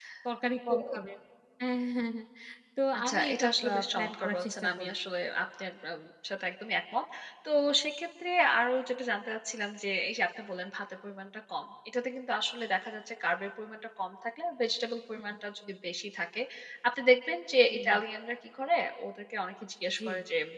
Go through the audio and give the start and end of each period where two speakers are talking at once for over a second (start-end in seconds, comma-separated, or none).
3.0-4.9